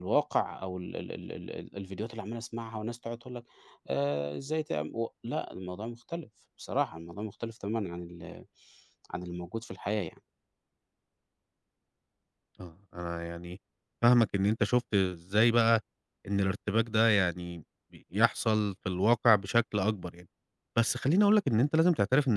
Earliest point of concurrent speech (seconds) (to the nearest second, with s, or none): none